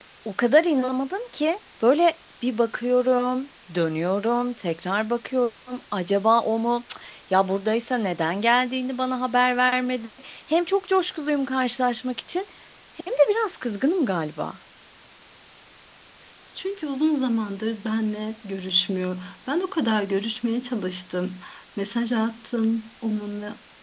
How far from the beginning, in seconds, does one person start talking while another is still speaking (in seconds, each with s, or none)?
none